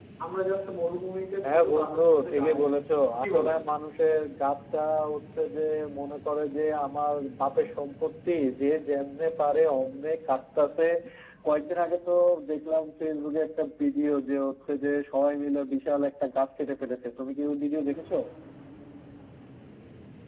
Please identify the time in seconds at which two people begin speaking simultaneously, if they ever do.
1 s

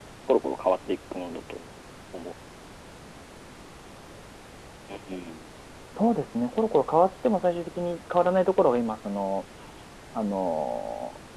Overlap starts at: none

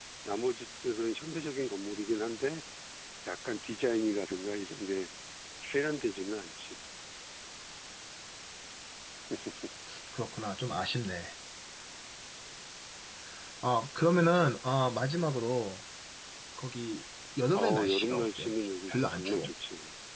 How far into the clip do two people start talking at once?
18 s

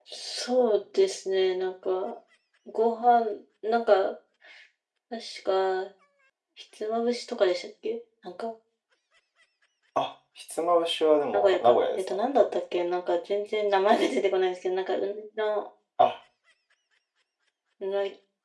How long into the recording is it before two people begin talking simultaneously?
11 s

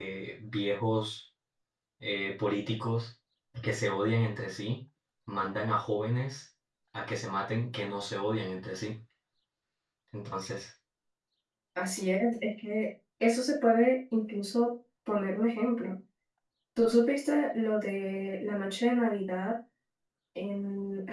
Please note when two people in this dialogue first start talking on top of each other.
none

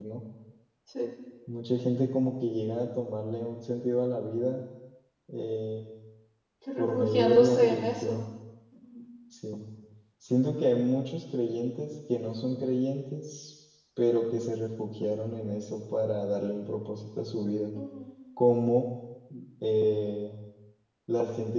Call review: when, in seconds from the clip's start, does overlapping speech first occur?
7 s

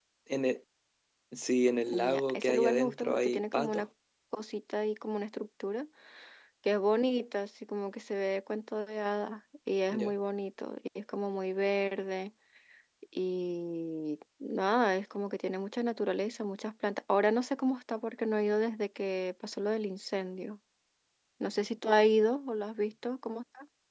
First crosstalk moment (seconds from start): 2 s

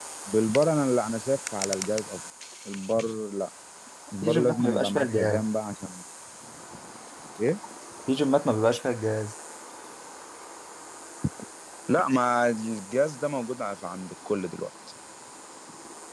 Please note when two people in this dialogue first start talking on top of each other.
4 s

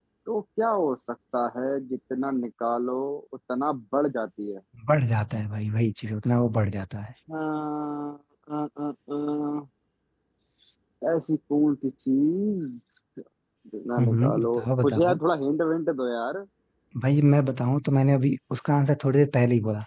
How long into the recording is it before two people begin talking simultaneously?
14 s

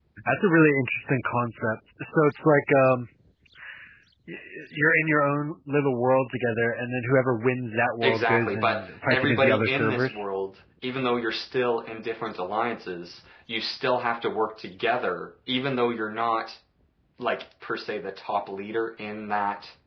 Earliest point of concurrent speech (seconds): 8 s

